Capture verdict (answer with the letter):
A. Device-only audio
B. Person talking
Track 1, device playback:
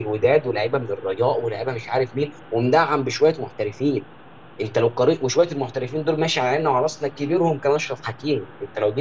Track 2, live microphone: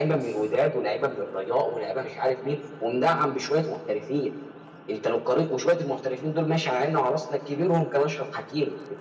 A